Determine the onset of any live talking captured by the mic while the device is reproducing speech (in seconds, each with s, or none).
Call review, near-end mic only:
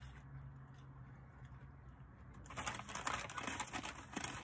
none